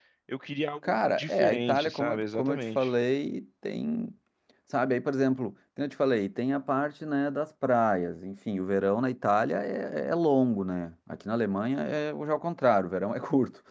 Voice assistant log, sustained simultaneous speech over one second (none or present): present